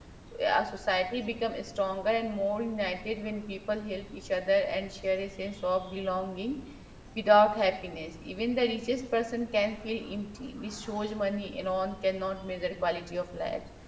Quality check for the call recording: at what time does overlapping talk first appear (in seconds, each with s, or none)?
none